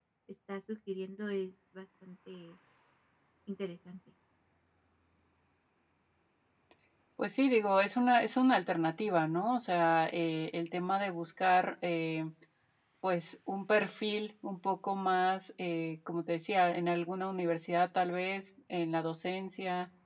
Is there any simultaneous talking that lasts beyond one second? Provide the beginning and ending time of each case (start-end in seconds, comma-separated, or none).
none